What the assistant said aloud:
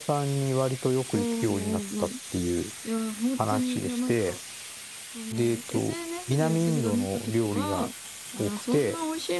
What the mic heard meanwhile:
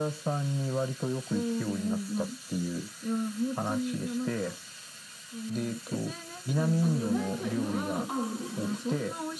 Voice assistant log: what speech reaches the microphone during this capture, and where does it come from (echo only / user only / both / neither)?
both